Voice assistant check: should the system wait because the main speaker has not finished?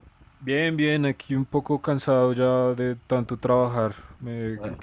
Yes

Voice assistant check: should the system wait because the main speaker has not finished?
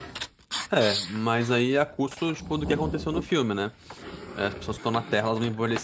Yes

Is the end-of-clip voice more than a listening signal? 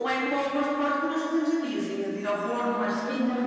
Yes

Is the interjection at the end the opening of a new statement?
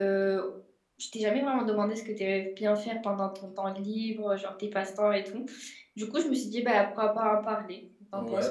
Yes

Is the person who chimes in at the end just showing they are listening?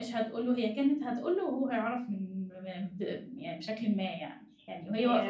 Yes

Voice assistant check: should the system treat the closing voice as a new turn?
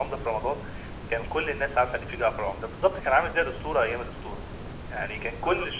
No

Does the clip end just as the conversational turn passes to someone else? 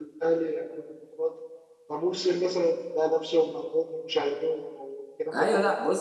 Yes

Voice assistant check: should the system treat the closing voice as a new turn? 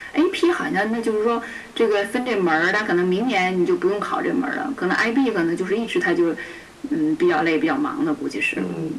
Yes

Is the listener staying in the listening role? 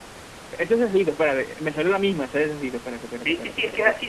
No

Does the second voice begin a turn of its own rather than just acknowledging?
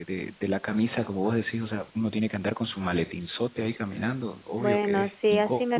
Yes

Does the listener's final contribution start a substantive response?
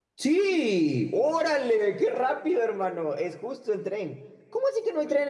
No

